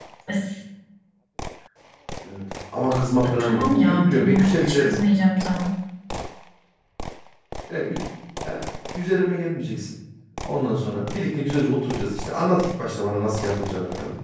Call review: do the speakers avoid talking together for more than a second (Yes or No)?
No